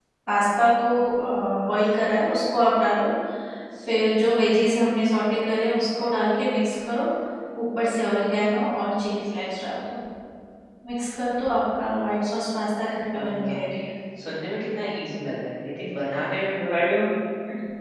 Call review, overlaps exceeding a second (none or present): none